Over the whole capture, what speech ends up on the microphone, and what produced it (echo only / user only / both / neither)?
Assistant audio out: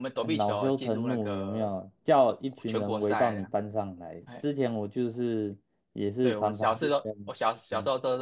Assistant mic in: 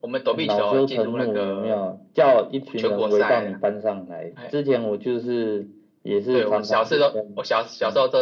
echo only